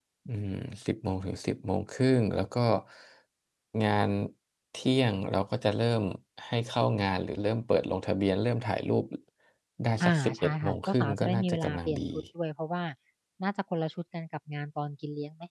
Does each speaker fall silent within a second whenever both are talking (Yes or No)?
No